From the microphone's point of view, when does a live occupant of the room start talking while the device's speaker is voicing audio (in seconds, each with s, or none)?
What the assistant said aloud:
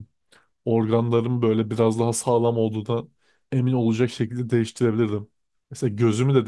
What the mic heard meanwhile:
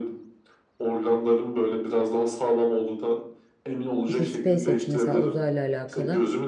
4.0 s